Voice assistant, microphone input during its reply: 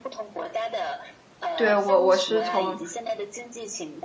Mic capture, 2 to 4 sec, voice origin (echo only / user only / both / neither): both